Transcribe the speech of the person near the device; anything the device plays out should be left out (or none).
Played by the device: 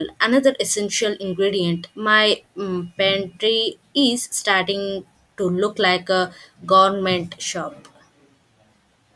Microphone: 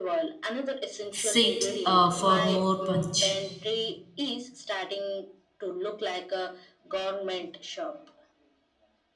seeds uh, for more punch.